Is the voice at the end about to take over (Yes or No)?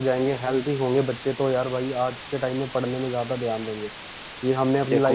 No